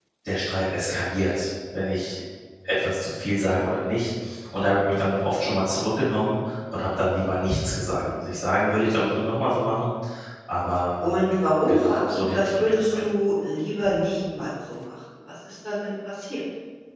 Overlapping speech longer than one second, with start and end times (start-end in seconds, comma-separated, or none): 11.7-13.0